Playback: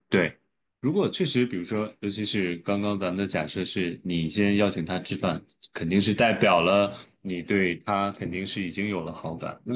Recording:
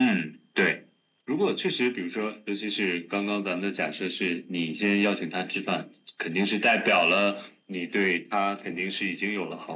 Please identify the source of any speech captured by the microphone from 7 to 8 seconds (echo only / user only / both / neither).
echo only